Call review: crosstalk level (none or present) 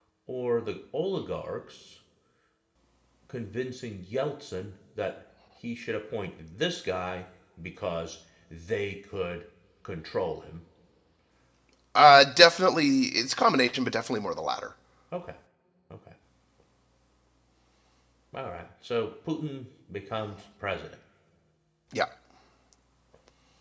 none